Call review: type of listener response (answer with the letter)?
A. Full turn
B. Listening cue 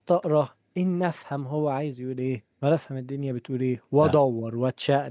B